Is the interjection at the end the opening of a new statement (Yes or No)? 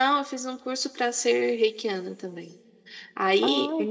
No